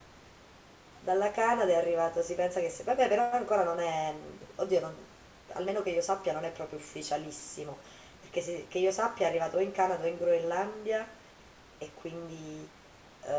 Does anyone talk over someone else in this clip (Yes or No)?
No